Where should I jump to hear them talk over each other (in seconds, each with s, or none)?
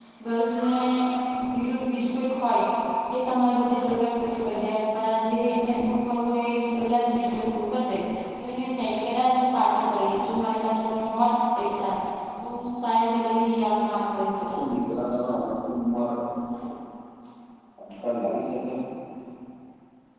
none